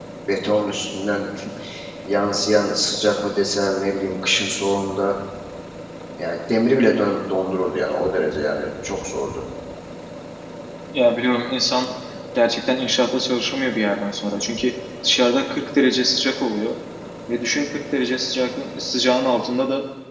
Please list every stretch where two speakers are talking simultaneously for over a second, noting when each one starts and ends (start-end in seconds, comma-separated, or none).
none